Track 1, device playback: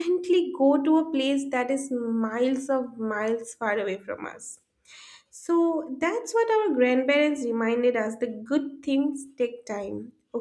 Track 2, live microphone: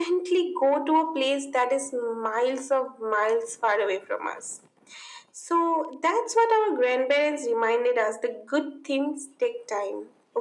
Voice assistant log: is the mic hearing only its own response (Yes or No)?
Yes